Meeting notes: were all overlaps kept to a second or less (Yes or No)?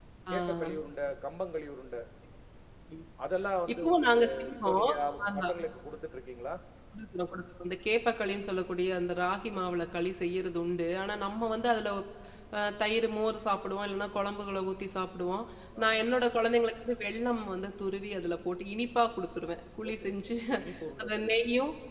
No